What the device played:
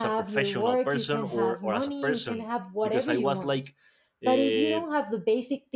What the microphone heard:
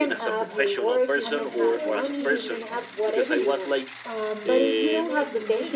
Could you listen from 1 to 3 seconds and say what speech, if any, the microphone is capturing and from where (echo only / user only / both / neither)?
both